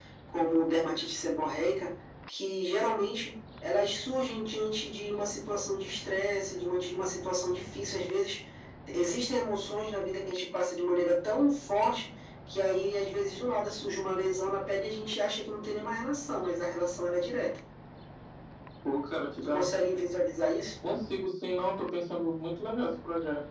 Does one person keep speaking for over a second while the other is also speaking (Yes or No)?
No